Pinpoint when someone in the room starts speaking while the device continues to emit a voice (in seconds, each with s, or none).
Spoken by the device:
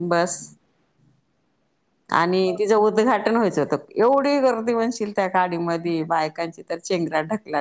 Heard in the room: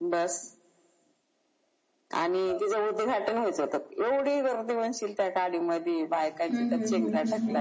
6.1 s